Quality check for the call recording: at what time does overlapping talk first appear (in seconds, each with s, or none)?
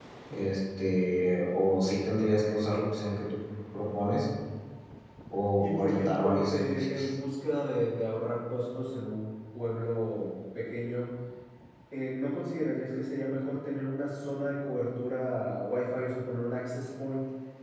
5.6 s